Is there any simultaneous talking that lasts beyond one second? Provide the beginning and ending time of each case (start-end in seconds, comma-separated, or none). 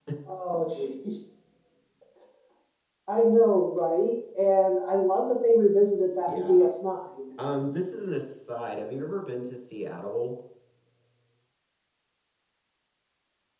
none